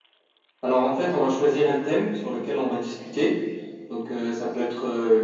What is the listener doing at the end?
listening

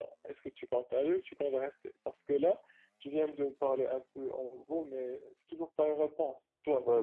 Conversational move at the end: taking over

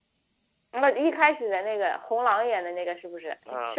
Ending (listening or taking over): taking over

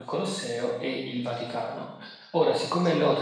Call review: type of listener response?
listening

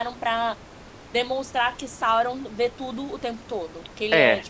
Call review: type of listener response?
taking over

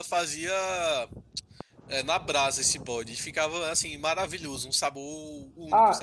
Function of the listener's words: taking over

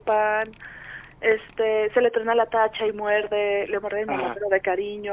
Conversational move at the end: listening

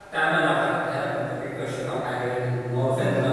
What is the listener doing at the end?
listening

